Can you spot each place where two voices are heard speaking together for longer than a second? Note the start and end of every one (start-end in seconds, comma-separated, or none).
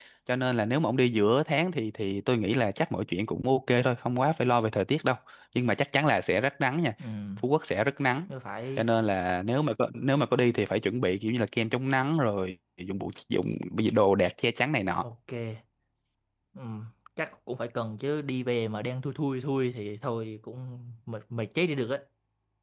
none